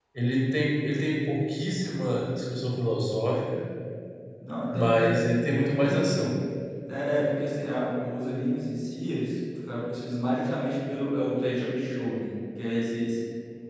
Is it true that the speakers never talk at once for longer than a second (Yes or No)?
No